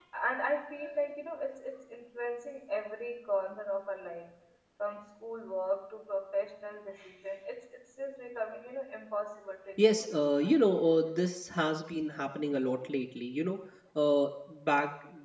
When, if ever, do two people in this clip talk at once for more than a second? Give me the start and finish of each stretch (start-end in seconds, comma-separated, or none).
none